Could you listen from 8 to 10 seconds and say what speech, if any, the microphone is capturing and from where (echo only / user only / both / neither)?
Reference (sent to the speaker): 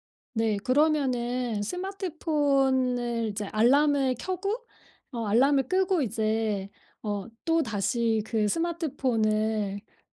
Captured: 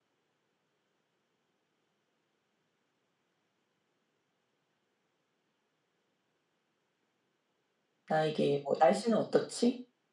user only